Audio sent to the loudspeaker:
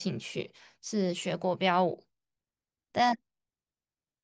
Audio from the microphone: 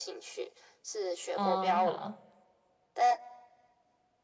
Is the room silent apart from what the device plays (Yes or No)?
No